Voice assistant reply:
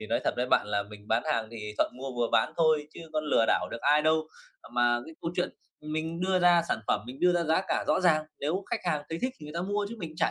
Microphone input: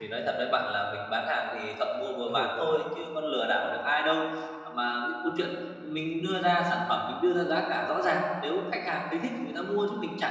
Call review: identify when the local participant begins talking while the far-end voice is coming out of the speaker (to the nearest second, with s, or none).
2 s